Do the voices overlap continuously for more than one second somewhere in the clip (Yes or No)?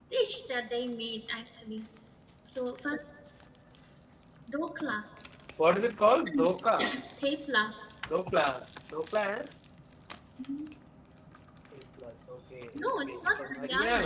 Yes